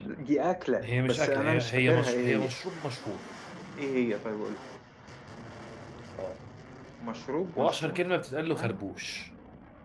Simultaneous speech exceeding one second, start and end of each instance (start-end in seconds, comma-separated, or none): 0.8-2.5